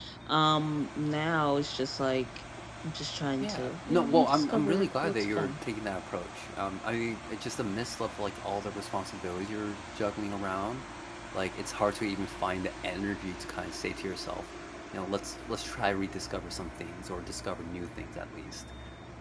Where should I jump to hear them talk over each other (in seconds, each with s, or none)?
3.4 s